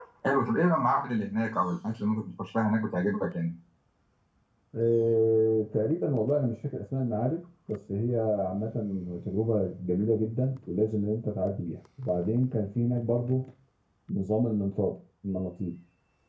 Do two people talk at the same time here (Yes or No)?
No